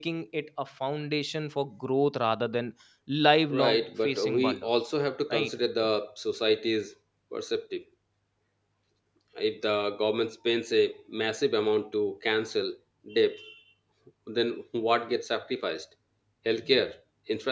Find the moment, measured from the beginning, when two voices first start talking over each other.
3.5 s

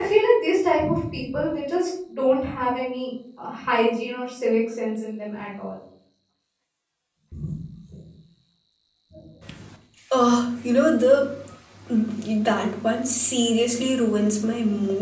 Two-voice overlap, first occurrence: none

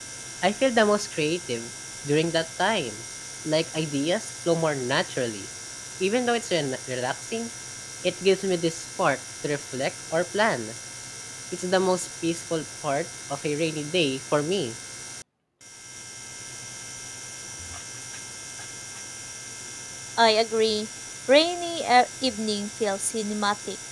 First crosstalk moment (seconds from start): none

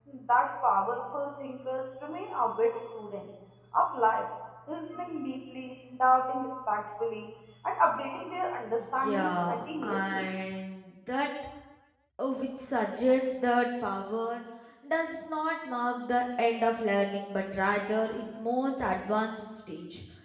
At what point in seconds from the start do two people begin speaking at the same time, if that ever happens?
9.0 s

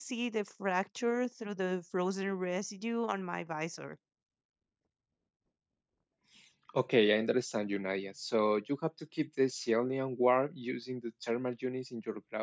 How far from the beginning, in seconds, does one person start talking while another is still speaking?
none

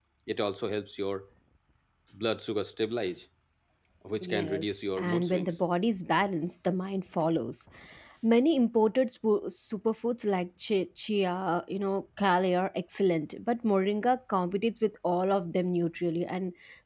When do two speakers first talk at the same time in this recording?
4.2 s

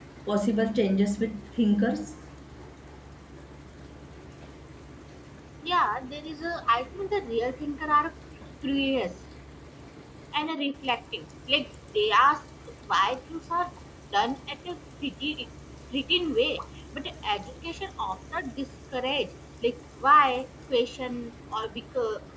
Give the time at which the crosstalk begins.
none

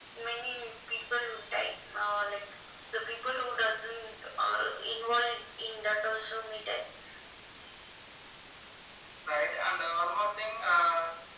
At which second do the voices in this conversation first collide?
none

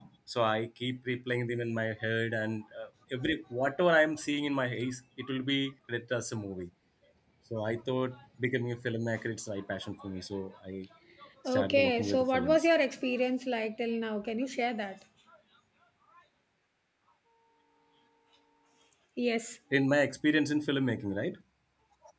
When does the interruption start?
11.5 s

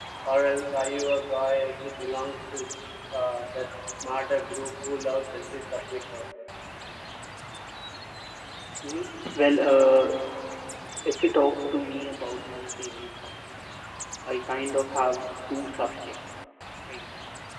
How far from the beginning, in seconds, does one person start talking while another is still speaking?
none

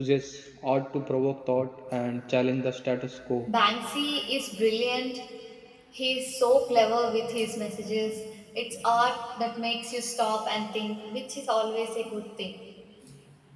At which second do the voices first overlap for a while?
none

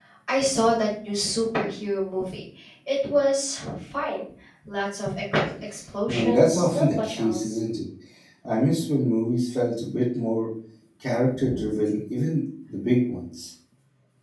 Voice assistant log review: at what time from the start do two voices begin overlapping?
6.1 s

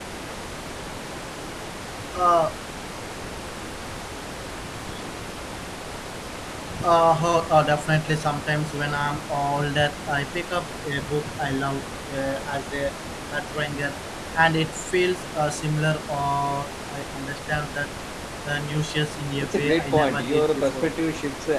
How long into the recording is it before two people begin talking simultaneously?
19.4 s

